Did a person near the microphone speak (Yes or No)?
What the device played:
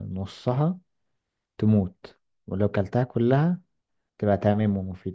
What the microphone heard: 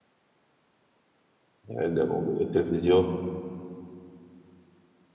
Yes